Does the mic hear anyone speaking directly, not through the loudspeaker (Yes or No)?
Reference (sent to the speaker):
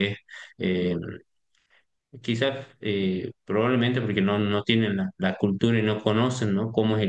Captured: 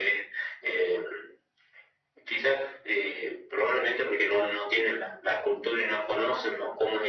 No